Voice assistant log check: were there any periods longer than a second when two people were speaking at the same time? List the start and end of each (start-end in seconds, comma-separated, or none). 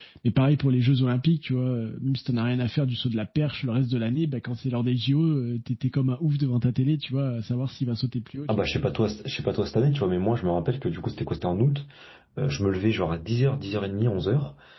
none